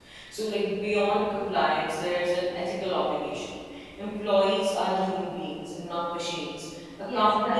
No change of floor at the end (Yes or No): Yes